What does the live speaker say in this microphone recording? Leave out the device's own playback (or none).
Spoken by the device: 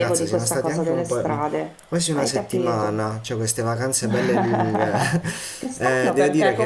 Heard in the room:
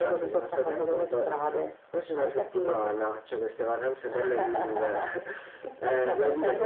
none